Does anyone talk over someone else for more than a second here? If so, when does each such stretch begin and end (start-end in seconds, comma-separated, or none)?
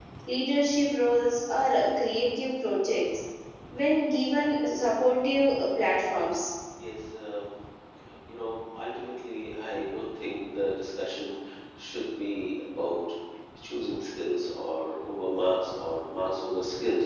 none